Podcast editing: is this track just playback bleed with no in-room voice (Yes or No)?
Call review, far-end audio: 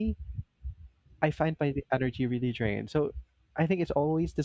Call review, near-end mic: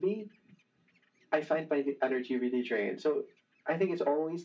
Yes